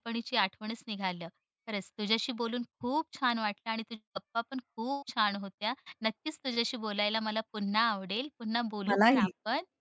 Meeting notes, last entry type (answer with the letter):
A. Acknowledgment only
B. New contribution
A